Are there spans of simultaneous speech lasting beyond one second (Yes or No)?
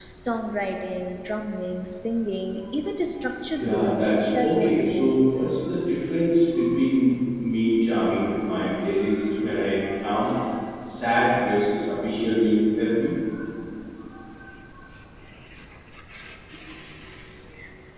Yes